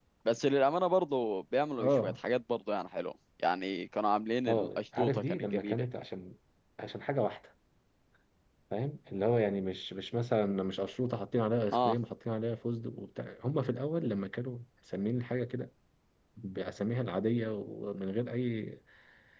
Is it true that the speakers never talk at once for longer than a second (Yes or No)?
No